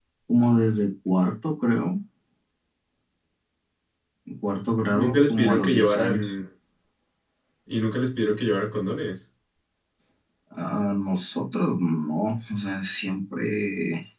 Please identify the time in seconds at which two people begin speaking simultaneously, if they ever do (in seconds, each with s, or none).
4.9 s